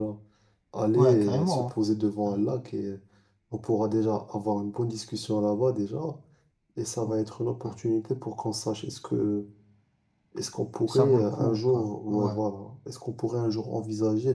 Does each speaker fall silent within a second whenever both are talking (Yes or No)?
No